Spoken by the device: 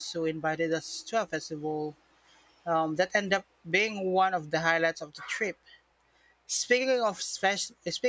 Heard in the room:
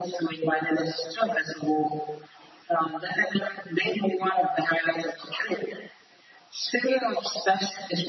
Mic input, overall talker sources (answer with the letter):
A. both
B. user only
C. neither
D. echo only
D